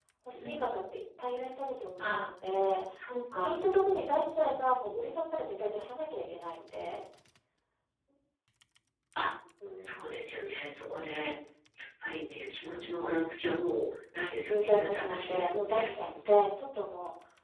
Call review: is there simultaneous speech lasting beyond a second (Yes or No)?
Yes